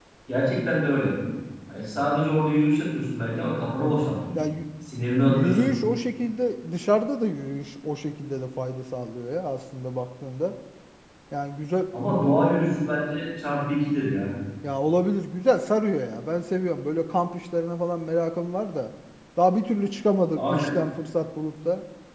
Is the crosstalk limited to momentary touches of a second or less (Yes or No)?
Yes